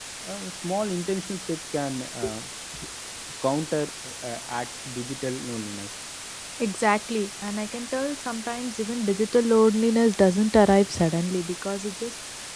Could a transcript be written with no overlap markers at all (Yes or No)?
Yes